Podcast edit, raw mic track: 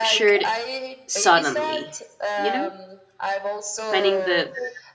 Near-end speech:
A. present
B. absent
A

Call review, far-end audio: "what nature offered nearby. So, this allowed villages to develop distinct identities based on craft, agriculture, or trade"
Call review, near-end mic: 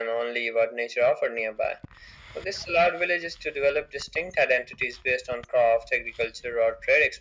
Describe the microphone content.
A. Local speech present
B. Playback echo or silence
B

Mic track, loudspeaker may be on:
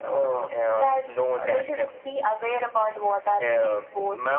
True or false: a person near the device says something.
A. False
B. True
A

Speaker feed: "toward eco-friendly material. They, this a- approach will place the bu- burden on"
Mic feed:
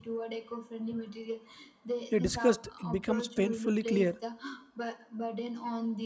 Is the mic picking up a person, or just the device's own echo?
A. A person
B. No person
A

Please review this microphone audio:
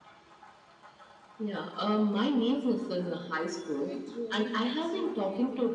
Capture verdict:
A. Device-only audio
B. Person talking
B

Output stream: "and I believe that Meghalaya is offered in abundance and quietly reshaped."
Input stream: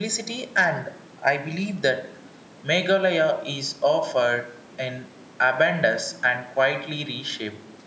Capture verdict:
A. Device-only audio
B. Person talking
A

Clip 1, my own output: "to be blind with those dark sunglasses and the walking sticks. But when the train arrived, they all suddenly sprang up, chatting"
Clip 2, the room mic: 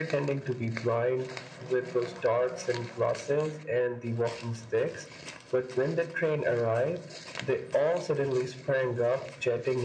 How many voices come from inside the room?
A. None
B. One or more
A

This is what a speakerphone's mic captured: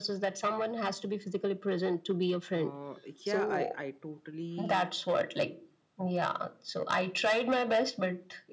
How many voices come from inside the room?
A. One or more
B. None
A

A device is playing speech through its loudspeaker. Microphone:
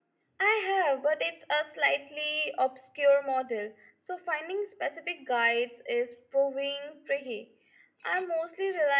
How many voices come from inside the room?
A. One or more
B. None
B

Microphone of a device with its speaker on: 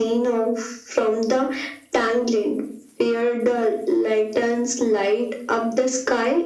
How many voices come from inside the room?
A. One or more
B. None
B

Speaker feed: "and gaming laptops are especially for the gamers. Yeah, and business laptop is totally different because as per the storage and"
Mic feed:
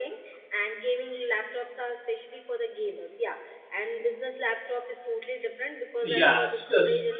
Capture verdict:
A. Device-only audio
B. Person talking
B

